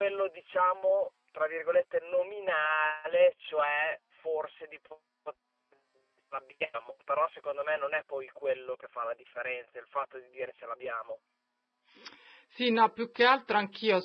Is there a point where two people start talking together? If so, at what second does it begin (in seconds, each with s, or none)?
none